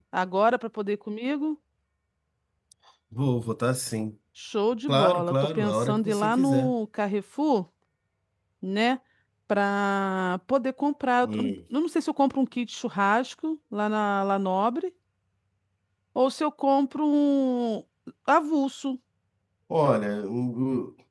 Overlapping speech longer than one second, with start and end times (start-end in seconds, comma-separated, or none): 4.9-6.7